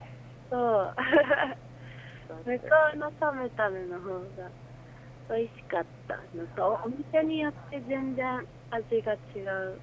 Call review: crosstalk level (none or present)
present